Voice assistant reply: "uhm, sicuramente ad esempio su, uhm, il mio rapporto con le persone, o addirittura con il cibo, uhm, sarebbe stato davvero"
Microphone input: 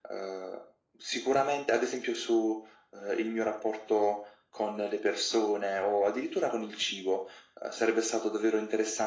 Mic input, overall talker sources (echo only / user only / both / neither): echo only